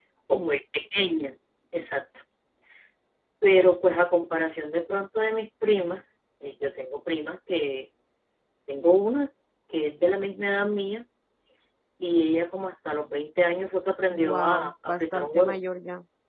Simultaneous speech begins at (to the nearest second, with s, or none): 14 s